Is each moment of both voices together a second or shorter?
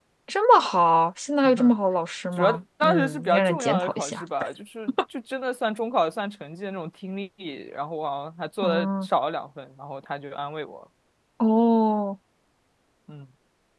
No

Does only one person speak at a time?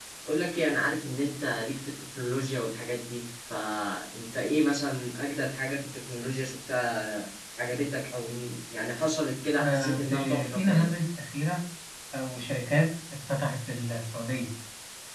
No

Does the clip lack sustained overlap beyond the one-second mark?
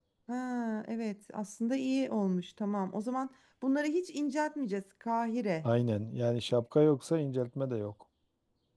Yes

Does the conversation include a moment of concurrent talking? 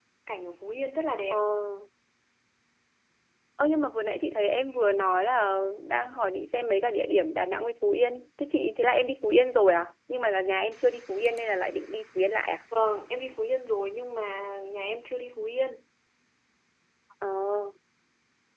No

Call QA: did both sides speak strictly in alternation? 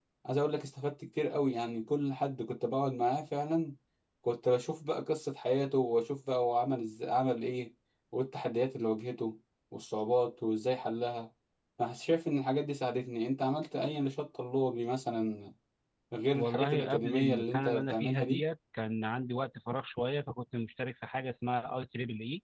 No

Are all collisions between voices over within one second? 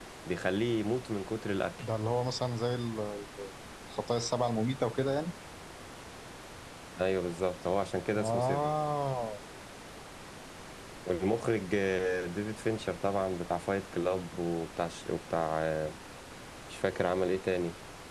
Yes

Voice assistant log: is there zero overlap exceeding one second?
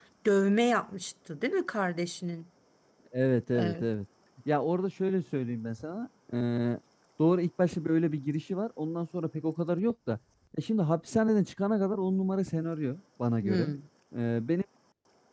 Yes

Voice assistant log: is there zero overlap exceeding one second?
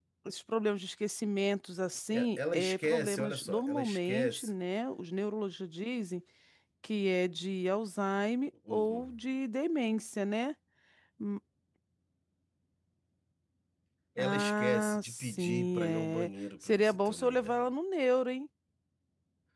No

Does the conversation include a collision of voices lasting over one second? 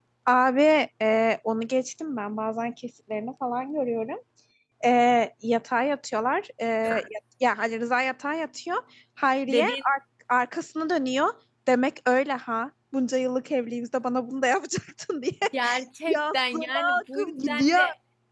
Yes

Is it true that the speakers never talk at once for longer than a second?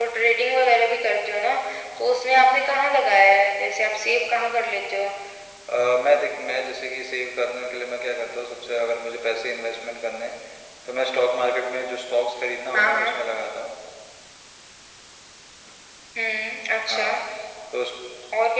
Yes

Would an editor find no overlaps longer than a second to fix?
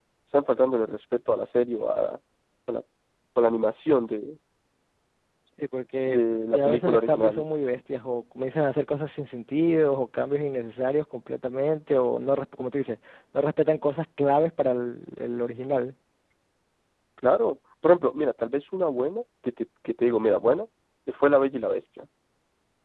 No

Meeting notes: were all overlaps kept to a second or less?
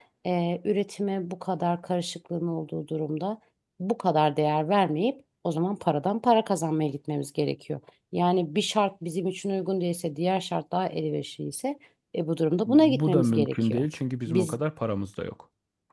No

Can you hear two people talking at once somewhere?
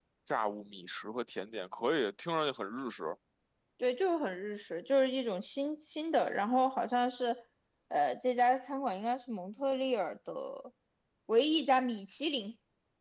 No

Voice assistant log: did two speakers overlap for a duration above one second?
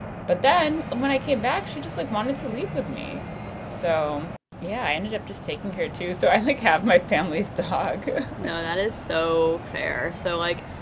No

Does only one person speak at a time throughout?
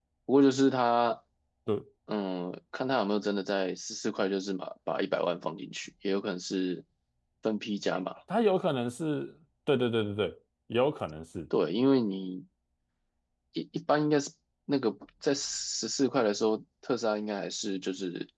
Yes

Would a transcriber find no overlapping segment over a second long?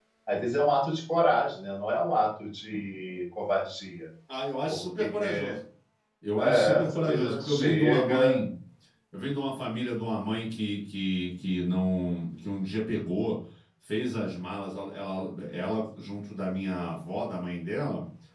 No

